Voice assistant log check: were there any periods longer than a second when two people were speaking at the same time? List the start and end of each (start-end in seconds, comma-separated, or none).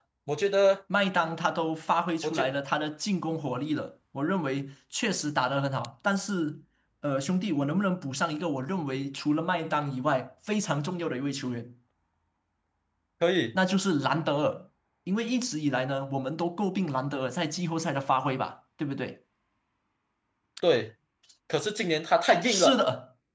none